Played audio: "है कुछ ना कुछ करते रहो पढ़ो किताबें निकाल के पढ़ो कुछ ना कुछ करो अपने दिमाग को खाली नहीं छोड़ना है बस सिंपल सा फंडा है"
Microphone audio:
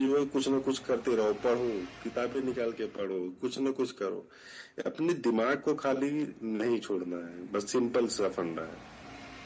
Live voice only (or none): none